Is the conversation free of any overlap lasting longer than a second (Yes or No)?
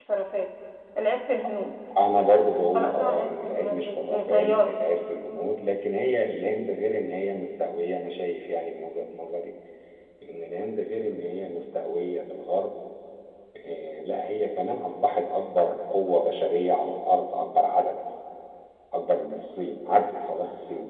No